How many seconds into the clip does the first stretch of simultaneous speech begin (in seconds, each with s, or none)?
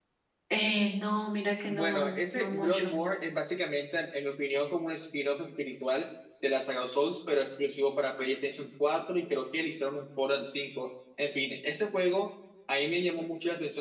1.7 s